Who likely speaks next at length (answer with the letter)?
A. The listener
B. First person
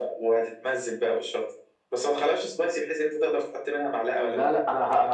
A